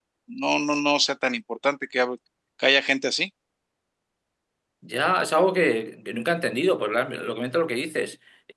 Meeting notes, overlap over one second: none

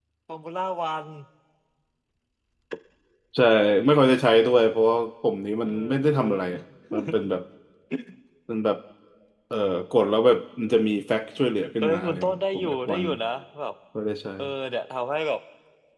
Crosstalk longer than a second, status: present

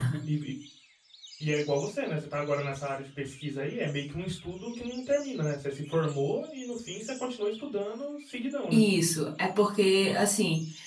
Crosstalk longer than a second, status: none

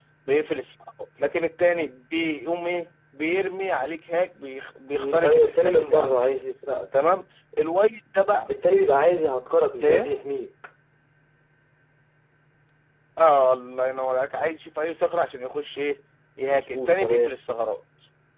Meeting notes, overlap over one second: present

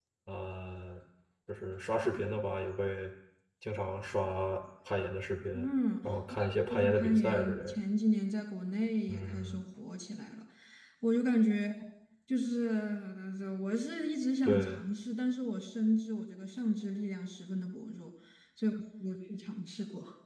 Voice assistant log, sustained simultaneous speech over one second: present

